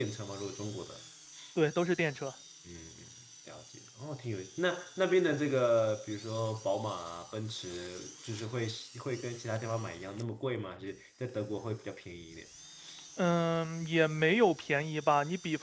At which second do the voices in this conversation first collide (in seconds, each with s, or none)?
none